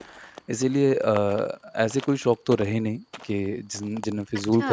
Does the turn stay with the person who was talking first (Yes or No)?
Yes